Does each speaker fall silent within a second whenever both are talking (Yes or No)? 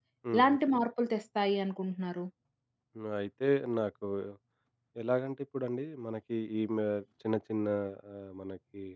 Yes